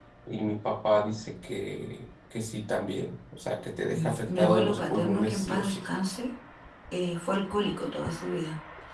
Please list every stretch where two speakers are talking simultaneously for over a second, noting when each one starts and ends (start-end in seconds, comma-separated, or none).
3.9-5.8